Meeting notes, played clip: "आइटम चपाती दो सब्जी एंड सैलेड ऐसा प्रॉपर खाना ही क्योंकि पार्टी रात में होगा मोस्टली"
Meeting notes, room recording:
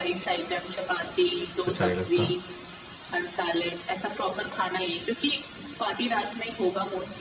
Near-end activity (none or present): present